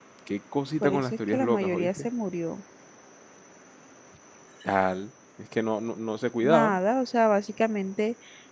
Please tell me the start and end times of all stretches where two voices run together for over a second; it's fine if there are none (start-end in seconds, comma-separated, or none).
0.8-2.1